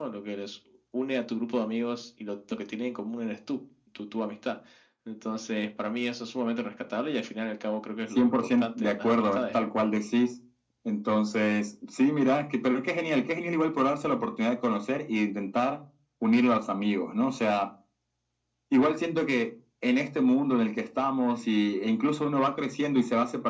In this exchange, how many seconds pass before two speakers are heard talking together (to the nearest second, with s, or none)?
8 s